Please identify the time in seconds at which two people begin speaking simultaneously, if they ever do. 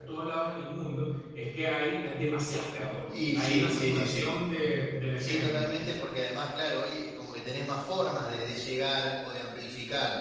3.1 s

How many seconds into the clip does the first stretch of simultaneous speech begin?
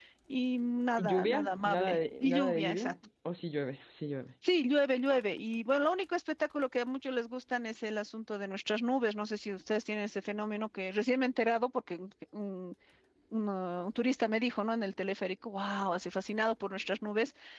1.0 s

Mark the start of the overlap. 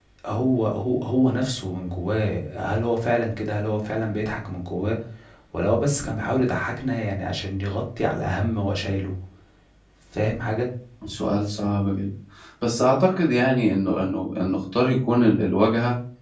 none

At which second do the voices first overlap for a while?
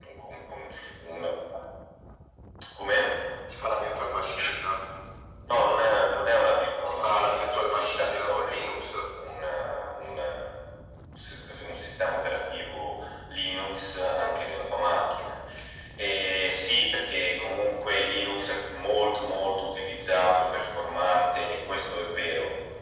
6.9 s

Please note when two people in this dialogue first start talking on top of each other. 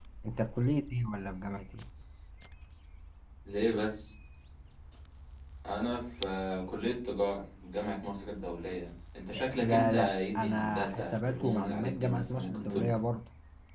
9.3 s

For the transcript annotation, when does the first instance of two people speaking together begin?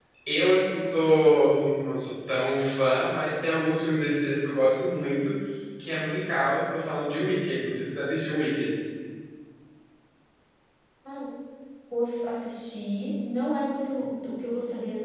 none

